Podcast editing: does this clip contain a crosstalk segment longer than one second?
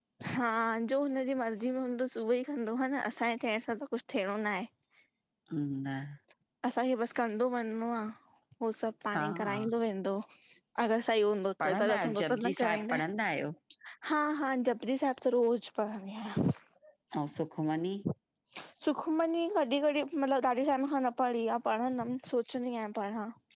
Yes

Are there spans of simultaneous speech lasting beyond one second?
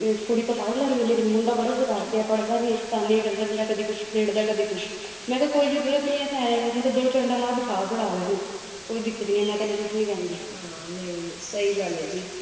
No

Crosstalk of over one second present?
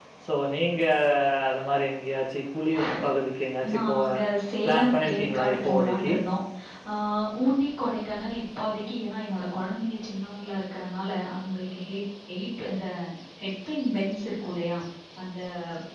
Yes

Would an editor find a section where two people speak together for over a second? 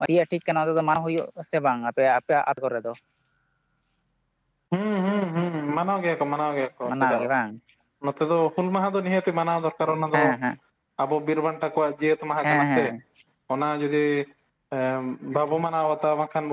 No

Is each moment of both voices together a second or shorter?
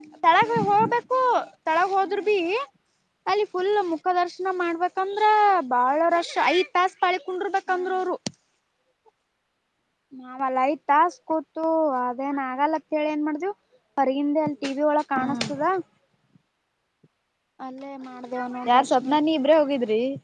Yes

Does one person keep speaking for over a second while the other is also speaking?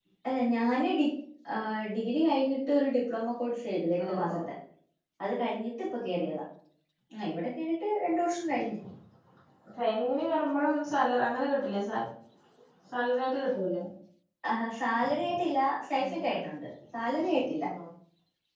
No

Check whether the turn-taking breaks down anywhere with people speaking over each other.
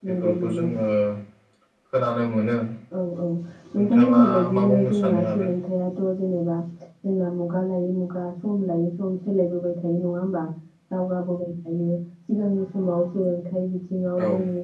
Yes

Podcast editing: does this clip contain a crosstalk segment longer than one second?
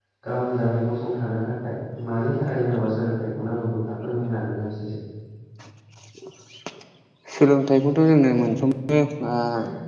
No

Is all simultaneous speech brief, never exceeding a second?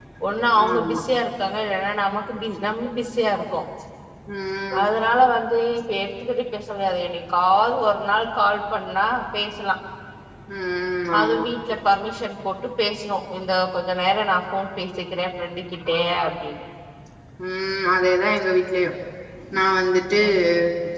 Yes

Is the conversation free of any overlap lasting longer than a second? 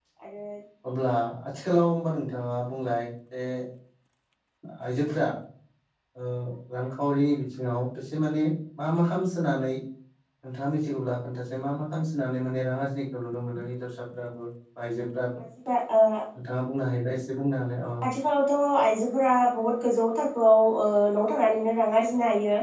Yes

